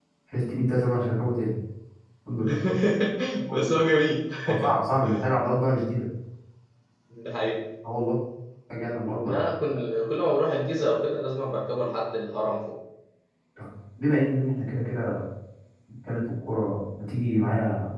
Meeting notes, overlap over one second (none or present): none